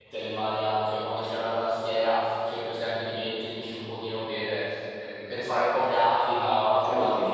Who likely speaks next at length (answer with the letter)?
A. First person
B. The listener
A